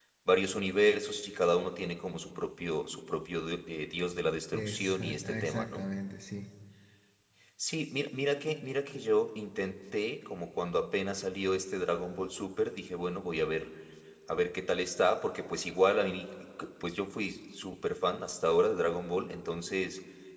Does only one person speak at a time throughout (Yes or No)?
No